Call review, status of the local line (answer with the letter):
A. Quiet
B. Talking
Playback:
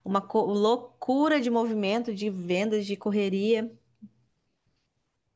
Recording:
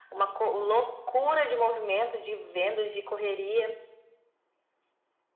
A